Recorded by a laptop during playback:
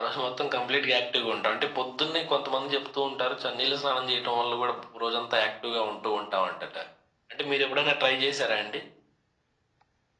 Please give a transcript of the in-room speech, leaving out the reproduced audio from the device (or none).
none